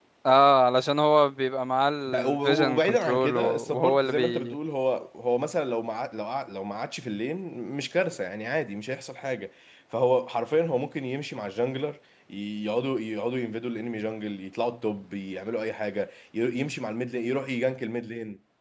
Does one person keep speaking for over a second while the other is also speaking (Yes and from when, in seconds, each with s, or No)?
Yes, from 2.1 s